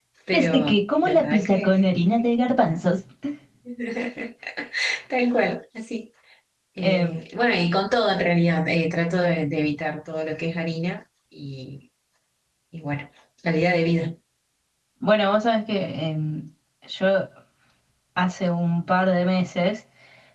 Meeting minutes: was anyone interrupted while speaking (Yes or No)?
Yes